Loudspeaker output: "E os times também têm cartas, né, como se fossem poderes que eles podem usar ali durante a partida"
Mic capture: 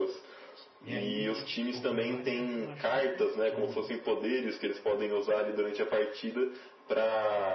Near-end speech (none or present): present